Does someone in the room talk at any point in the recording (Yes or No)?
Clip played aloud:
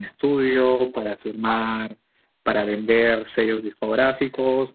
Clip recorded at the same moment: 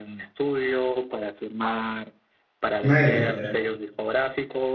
Yes